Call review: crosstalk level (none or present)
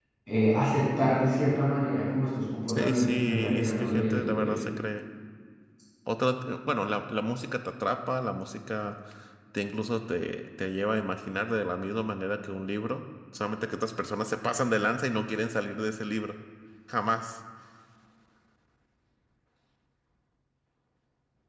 present